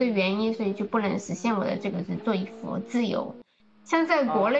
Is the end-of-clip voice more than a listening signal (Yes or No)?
No